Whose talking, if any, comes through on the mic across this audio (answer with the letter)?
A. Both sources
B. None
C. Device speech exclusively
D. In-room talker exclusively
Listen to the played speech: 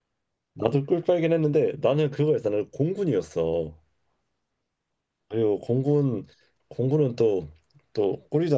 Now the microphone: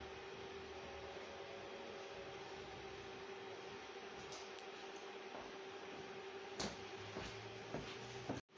B